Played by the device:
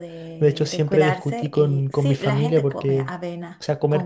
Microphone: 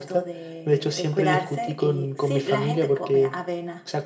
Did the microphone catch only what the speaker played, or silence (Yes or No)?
Yes